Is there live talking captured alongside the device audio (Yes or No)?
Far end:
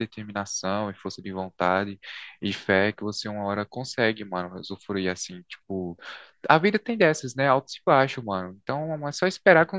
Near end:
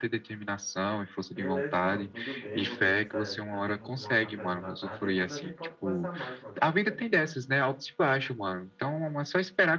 Yes